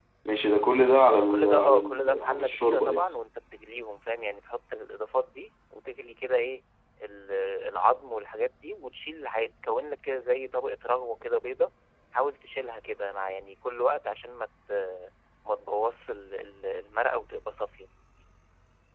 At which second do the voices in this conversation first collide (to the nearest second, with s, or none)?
1 s